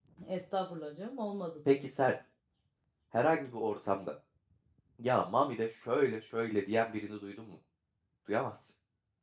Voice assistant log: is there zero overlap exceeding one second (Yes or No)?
Yes